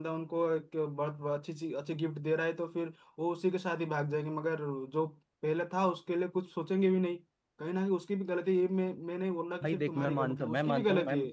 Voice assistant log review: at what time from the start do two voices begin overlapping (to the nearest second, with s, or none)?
10 s